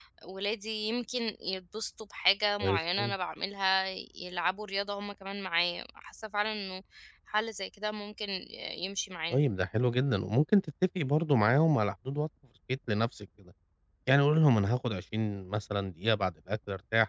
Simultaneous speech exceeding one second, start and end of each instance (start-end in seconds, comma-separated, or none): none